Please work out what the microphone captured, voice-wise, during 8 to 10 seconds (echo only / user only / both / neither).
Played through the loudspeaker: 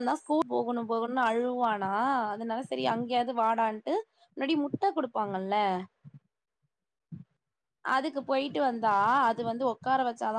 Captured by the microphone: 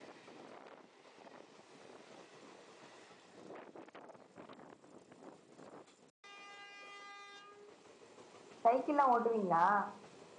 user only